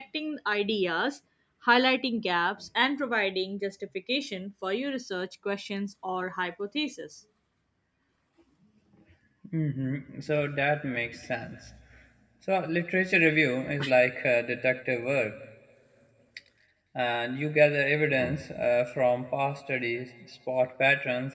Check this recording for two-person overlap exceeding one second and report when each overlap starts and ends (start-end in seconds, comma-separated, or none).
none